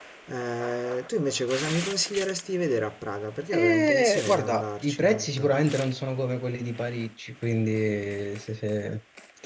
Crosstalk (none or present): present